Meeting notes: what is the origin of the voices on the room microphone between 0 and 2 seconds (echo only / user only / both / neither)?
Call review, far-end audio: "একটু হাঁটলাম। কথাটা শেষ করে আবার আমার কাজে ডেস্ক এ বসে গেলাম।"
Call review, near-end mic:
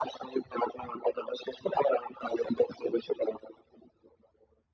echo only